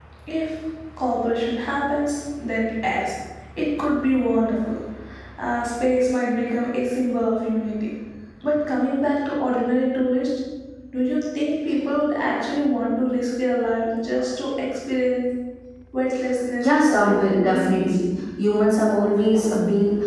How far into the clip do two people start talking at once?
16.6 s

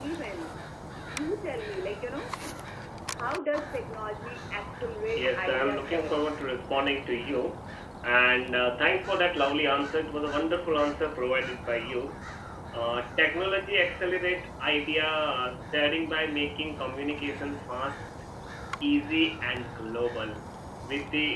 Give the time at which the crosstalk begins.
5.1 s

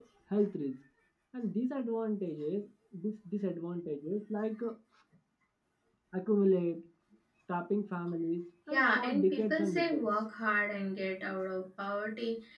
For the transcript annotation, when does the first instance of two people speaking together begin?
8.7 s

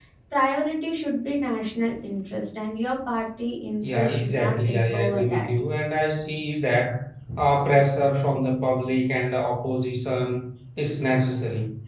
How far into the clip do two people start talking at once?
3.8 s

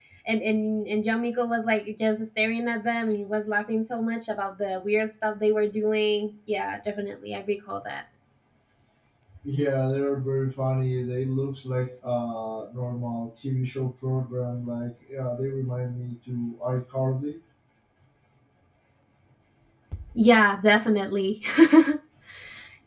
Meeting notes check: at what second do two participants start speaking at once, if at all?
none

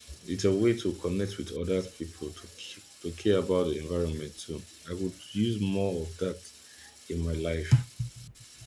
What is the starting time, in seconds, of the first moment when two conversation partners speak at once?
none

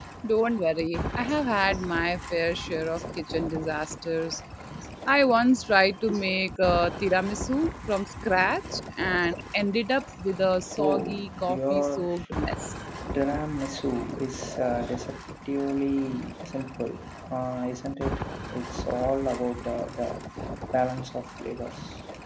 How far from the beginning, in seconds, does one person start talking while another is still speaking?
10.8 s

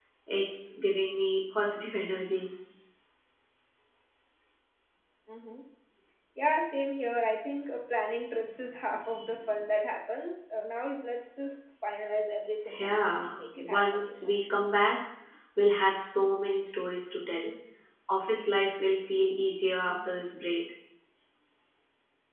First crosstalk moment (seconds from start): 12.8 s

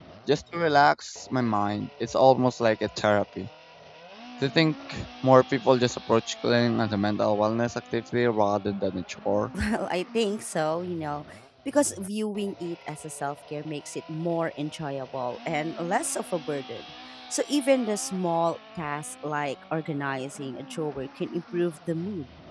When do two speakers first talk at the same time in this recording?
none

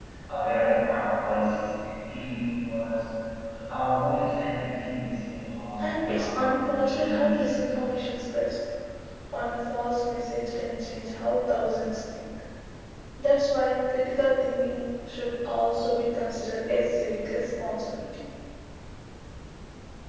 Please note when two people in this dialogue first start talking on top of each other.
5.8 s

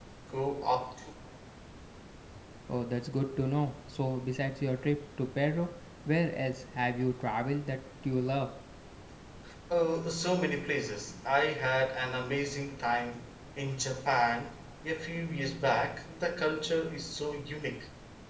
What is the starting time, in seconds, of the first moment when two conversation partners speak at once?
none

